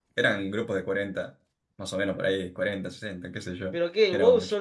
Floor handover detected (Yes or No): Yes